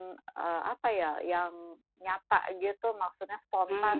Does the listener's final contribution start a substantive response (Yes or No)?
Yes